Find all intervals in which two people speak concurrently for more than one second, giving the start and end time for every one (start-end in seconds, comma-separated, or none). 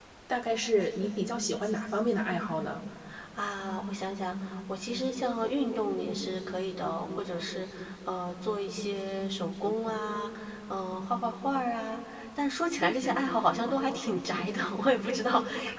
none